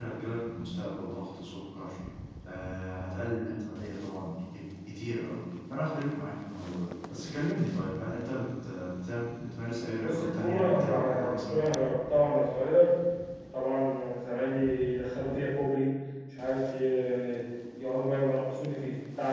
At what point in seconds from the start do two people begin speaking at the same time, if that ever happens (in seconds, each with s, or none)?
10.0 s